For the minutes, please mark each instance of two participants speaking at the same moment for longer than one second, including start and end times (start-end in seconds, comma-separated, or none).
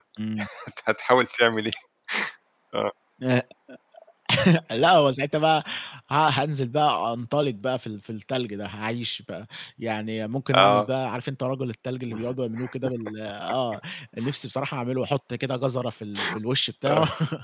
none